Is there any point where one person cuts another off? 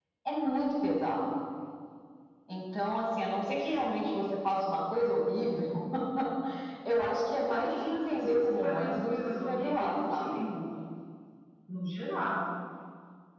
Yes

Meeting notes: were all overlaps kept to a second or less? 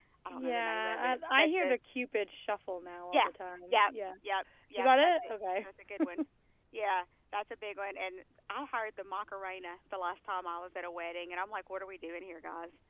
No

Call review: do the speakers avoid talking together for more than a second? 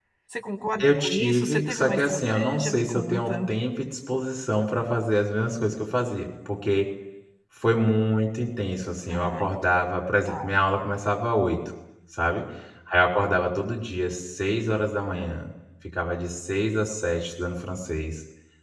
No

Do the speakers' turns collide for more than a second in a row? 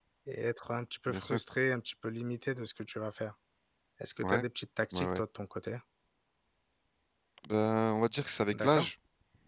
No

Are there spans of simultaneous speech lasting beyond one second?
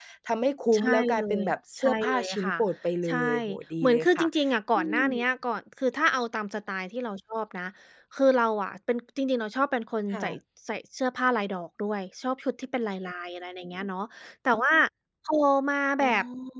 Yes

